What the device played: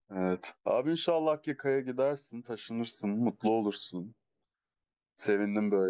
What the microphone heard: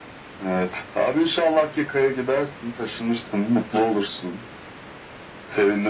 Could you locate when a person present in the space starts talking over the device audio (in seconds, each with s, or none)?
none